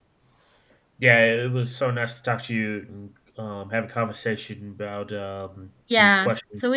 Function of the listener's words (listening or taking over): taking over